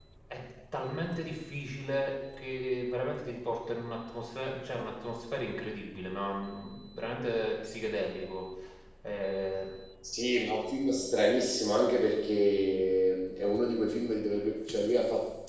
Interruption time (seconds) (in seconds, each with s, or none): none